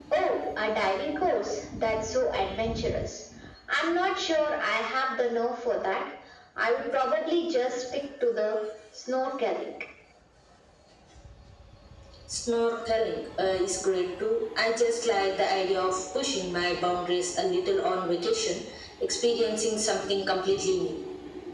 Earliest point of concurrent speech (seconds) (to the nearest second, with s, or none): none